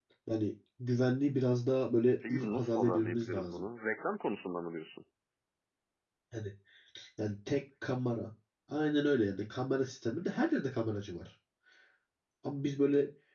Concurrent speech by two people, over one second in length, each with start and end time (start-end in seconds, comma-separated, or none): 2.3-3.6